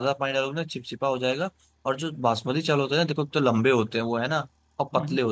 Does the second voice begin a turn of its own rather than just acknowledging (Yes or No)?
No